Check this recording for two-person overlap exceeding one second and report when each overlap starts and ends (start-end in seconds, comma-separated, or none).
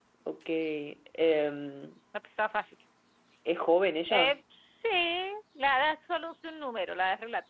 none